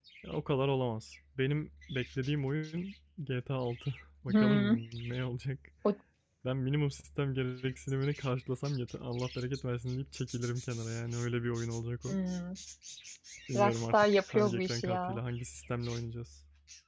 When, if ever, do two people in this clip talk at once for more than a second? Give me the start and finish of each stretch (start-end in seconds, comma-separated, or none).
13.6-15.2